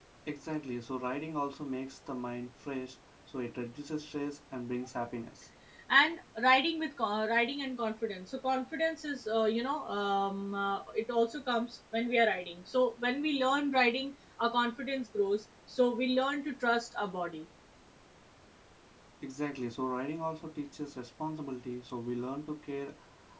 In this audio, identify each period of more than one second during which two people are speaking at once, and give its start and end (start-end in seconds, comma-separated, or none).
none